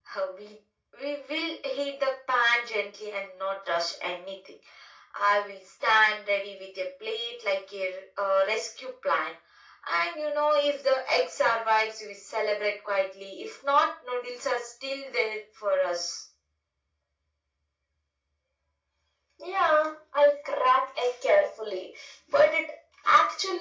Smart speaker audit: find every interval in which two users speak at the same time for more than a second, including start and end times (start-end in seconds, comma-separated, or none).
none